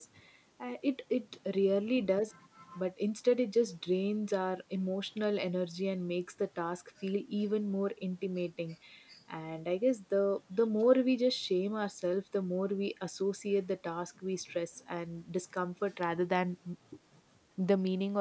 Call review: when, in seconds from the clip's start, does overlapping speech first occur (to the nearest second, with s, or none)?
none